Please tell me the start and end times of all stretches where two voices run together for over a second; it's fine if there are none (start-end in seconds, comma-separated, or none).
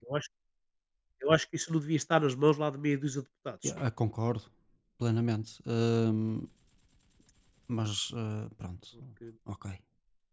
none